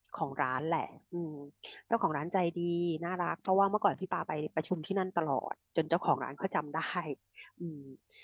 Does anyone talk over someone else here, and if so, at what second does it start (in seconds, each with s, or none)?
none